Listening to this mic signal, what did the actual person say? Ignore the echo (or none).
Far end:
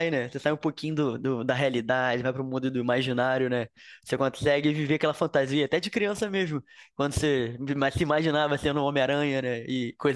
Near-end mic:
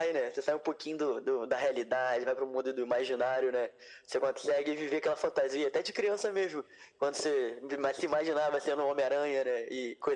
none